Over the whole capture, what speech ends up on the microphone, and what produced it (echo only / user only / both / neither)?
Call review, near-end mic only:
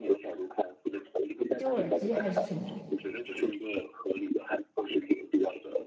both